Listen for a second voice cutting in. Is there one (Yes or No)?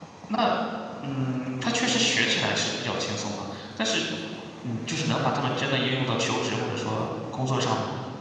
No